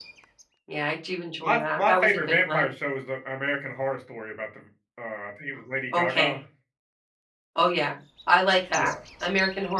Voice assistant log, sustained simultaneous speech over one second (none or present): present